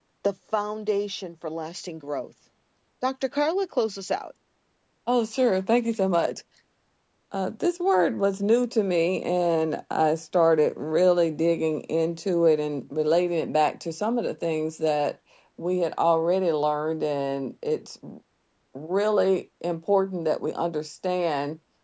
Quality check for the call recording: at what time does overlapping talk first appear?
none

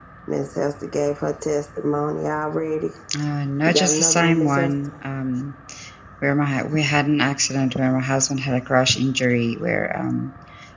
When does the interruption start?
3.7 s

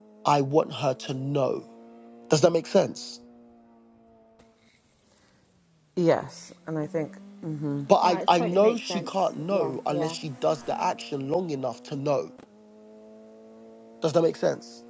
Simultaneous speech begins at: 8.0 s

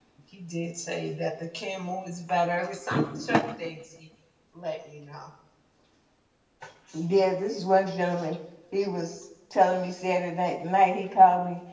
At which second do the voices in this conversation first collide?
none

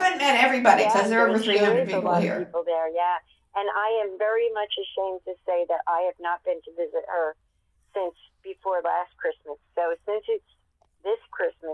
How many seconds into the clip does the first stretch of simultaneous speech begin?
0.7 s

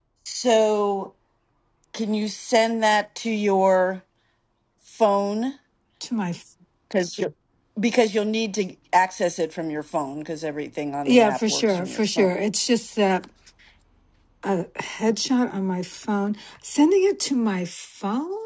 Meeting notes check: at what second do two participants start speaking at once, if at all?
11.1 s

